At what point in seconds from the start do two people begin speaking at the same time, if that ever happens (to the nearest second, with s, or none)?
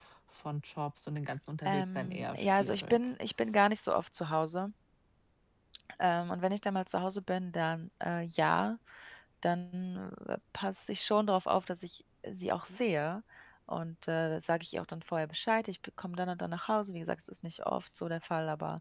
2 s